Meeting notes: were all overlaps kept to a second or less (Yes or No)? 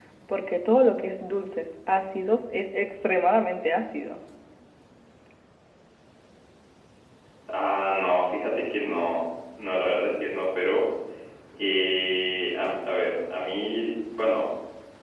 Yes